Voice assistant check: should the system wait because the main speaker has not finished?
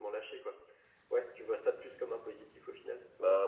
No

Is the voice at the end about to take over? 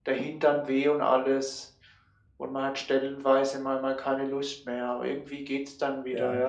No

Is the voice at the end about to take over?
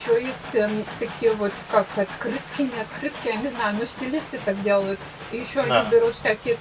No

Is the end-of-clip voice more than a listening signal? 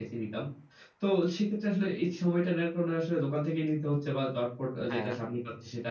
No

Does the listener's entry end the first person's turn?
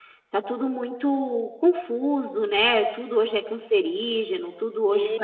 No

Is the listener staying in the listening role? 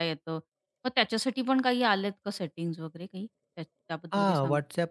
No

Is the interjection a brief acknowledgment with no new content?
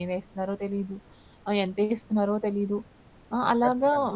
Yes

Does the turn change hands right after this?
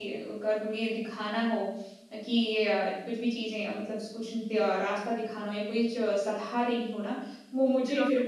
No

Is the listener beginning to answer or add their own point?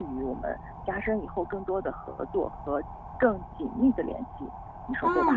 Yes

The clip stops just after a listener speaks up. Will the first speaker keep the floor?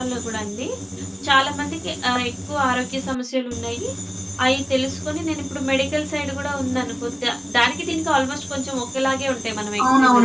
No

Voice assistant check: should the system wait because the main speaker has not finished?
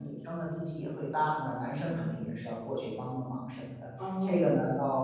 Yes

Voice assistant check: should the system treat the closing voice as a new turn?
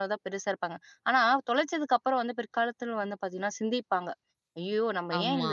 No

